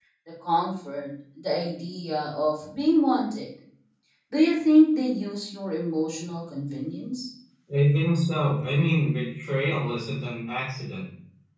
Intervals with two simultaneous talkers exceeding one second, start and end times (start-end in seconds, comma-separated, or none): none